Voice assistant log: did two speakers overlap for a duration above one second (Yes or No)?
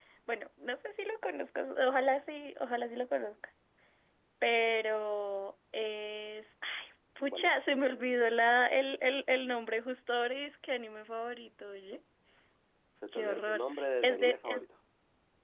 Yes